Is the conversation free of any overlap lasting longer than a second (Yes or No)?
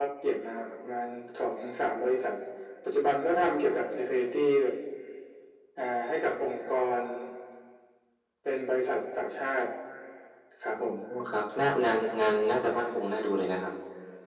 Yes